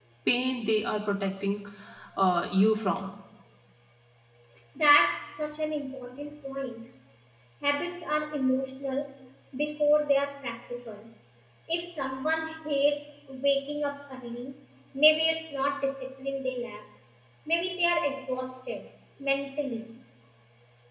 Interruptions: none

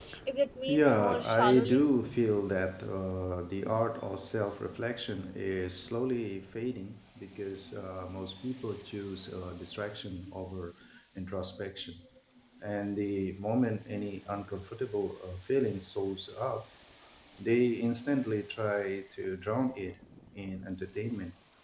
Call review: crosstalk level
present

